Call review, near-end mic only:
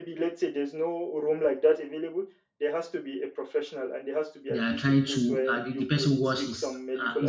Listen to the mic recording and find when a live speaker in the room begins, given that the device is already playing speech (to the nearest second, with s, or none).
4 s